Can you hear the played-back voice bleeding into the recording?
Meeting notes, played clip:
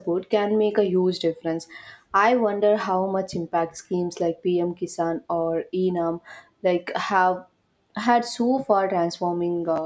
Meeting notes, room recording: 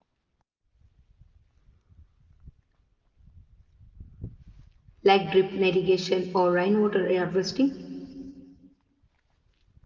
No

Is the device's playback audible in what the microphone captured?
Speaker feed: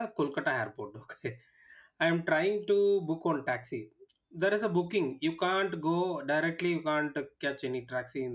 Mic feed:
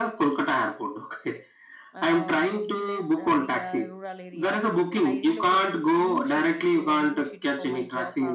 Yes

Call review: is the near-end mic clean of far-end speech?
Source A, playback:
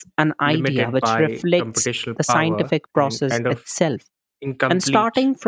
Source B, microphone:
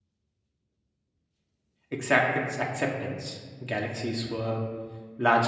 Yes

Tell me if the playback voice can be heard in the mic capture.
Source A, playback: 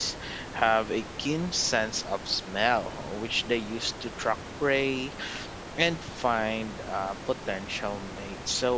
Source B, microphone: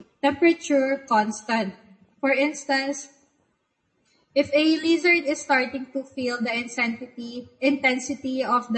No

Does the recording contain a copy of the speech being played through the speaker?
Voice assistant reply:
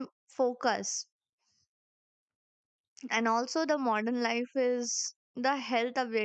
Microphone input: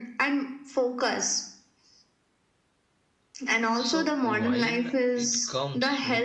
Yes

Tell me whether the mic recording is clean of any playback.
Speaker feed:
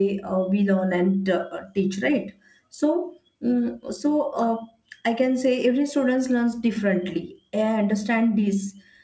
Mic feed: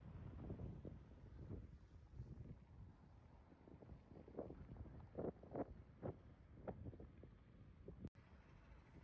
Yes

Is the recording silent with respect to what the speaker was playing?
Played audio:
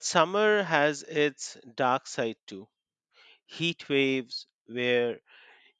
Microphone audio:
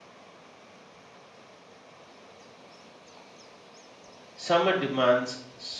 Yes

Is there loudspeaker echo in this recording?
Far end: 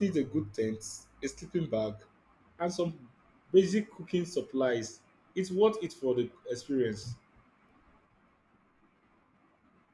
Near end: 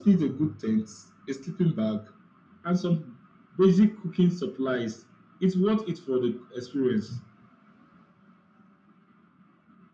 Yes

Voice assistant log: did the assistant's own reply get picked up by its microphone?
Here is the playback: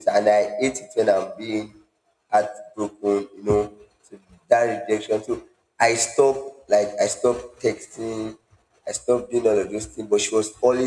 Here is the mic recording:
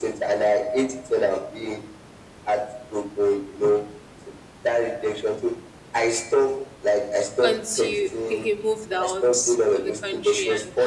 Yes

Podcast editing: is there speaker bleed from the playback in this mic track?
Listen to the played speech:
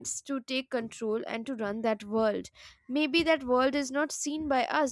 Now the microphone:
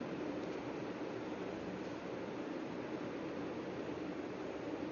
No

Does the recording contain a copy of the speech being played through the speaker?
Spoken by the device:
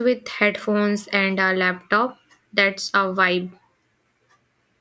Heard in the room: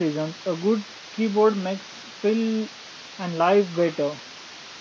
No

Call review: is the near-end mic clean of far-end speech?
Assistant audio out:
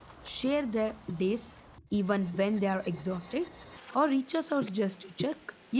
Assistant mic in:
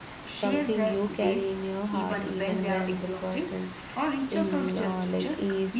No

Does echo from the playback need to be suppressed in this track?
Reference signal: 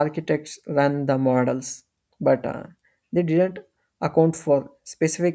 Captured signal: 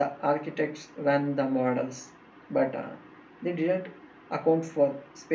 Yes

